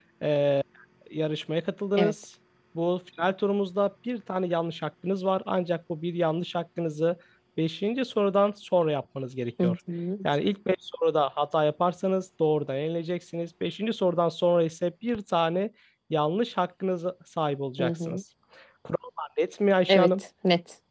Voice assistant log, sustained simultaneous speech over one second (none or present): none